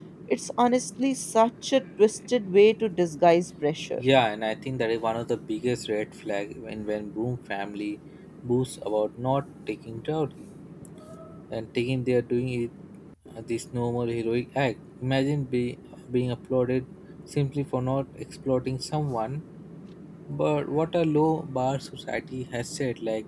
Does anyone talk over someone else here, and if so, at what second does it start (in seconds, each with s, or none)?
none